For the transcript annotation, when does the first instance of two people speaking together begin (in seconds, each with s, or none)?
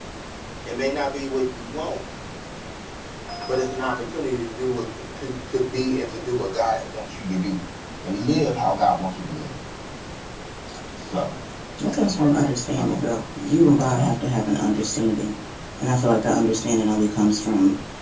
11.8 s